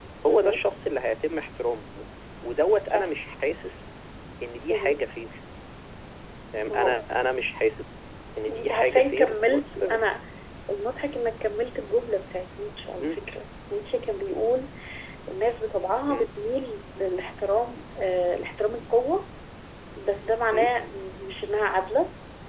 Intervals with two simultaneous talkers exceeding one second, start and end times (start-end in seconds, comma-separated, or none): 8.5-10.0